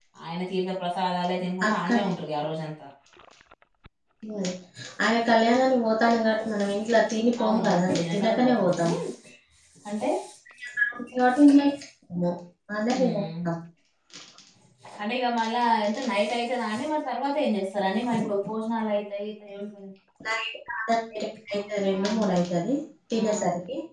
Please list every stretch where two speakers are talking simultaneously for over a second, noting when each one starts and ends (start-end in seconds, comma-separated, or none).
7.4-8.9